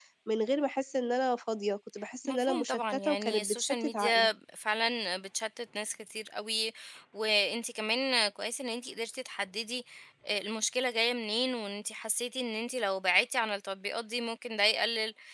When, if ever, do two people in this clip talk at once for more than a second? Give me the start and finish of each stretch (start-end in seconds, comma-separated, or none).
2.2-4.3